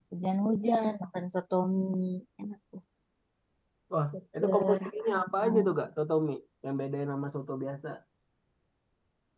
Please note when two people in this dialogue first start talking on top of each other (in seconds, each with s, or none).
4.4 s